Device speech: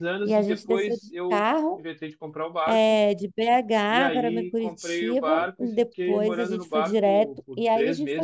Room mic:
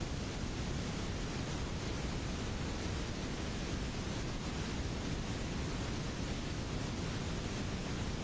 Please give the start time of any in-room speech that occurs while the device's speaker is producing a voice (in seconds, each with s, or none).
none